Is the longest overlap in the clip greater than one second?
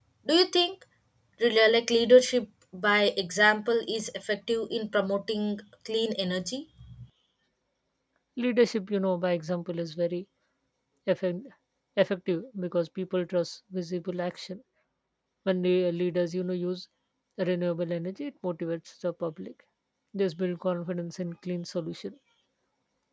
No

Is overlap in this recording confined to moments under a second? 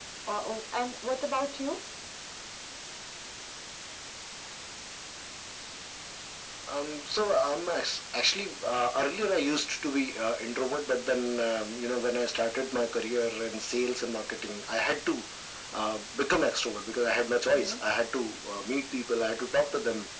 Yes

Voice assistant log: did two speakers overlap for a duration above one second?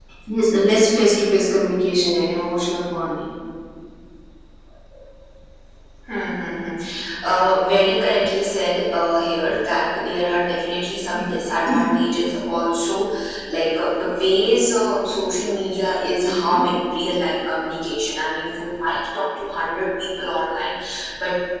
No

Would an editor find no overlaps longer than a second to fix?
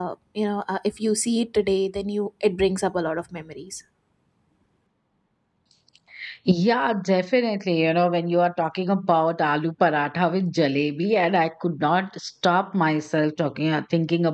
Yes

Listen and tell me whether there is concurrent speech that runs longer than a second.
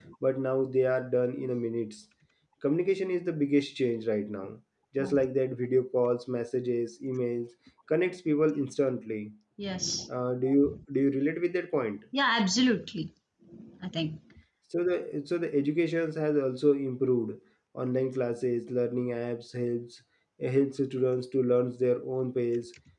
No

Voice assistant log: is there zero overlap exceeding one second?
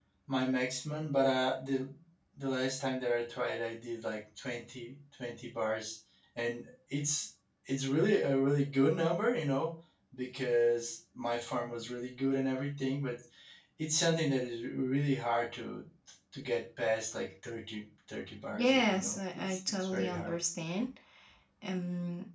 No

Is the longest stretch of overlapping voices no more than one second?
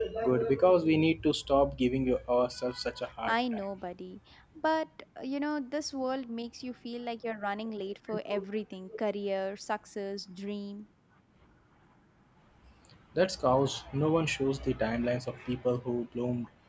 Yes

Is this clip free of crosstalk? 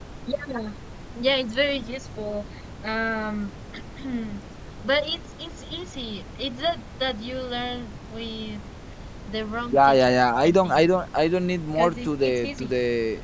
No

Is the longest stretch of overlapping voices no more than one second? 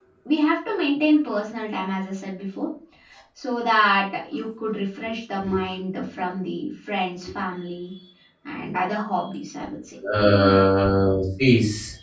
Yes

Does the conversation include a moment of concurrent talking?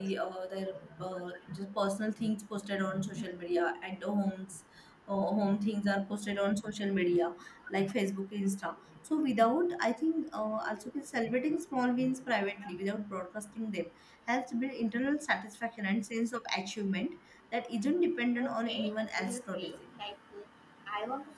Yes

